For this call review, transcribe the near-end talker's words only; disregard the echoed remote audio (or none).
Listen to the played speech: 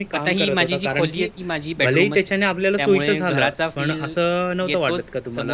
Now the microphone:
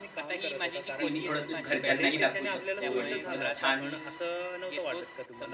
की मी थोडंसं घरच्यांनाही दाखवू शकतो आणि थोडंसं छान